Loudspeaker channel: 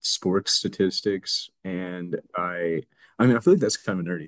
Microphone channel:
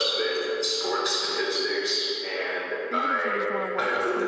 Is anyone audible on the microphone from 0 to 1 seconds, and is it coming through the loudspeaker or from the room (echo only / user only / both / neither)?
echo only